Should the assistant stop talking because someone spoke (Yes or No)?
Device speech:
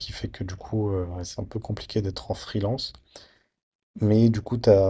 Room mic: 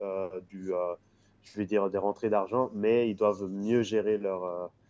Yes